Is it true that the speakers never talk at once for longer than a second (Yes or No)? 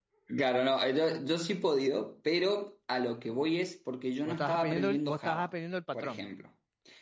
No